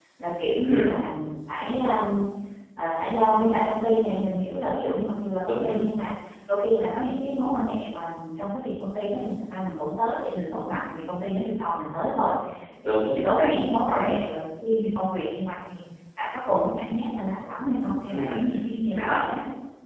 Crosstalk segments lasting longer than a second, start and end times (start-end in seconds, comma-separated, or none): 12.8-14.1